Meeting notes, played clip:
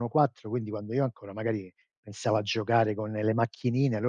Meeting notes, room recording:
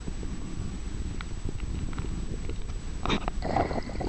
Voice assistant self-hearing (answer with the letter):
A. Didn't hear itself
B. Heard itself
A